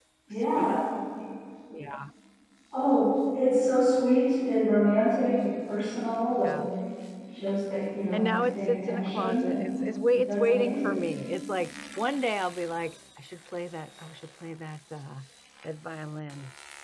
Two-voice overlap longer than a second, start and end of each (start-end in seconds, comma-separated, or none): 8.1-11.0